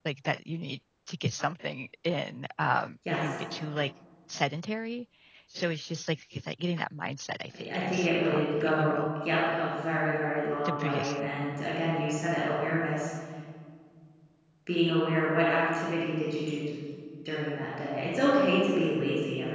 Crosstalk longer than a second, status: present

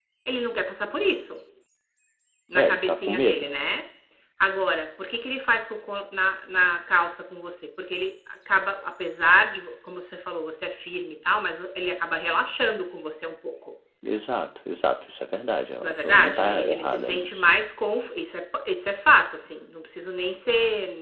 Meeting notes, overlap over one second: present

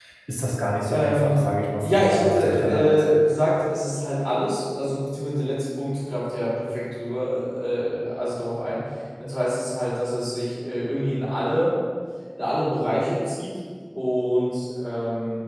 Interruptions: present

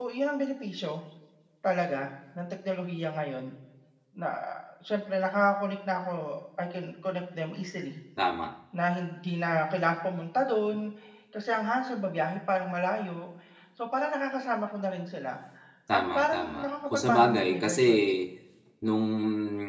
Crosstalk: present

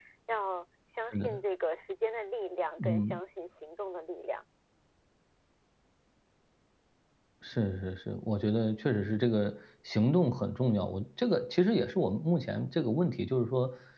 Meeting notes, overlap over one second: none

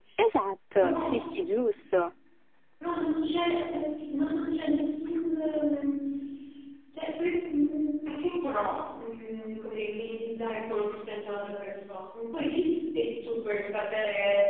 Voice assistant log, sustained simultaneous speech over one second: none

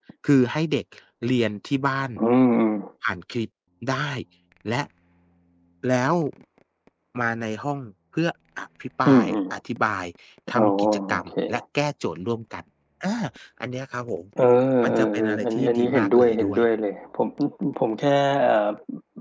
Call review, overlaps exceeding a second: present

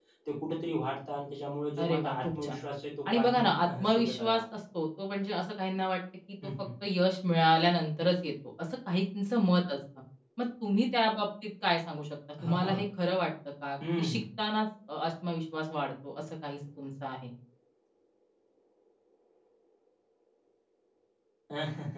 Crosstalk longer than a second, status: present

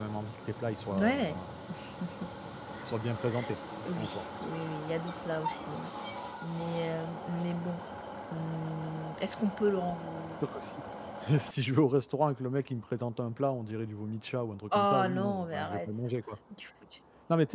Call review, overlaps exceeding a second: present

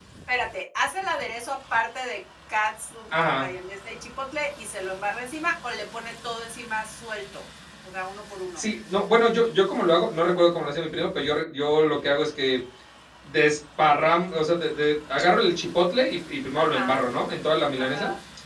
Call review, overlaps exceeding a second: none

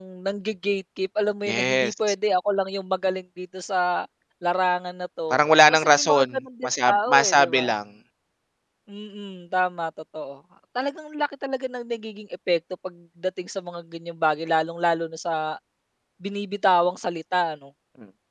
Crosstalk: present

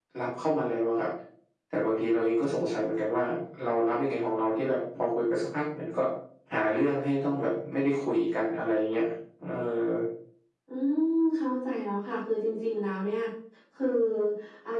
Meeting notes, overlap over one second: none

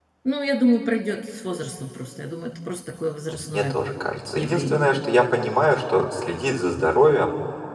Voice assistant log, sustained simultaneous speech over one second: none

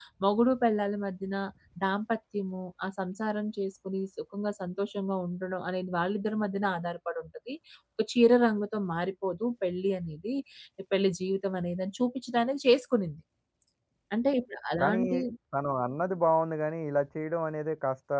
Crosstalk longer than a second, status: none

